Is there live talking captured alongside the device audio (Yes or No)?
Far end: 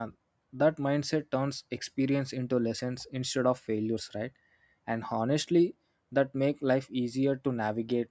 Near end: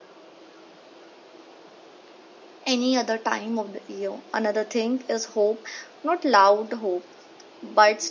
Yes